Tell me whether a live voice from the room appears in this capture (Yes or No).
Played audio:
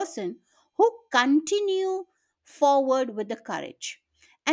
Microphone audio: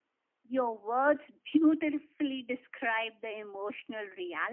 Yes